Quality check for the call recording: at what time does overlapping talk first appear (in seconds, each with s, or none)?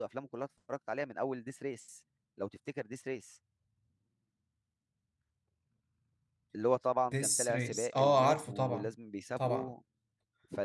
7.1 s